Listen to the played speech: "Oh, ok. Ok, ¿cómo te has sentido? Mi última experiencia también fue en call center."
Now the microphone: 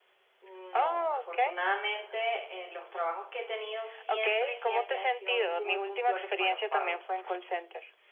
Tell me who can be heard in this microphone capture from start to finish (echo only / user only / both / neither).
both